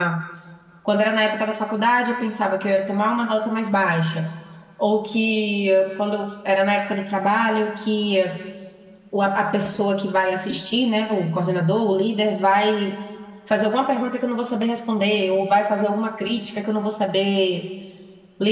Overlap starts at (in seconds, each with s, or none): none